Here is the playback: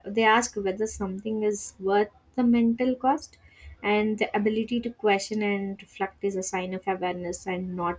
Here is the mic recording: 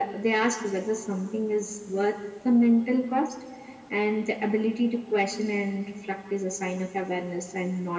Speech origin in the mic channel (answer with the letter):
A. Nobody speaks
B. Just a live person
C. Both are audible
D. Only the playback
D